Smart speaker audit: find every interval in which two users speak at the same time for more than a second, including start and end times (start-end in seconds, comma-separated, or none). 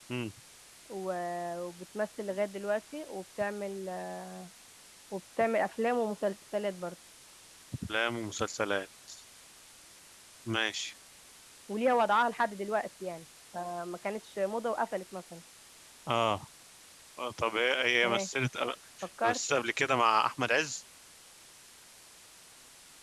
none